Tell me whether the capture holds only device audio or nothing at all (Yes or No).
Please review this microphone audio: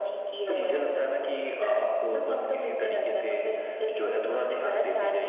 Yes